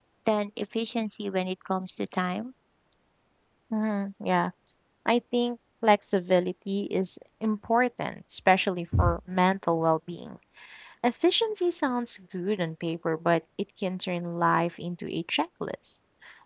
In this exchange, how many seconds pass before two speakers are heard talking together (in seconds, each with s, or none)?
none